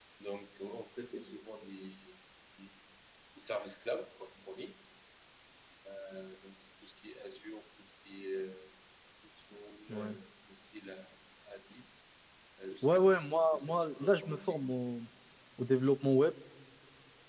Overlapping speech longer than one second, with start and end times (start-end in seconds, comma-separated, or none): 12.8-14.7